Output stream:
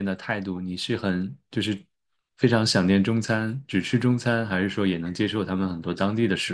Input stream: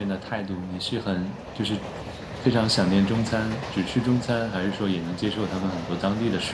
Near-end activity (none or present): none